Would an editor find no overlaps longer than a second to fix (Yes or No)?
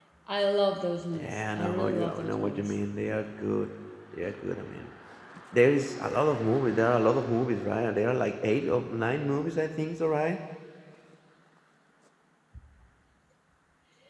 No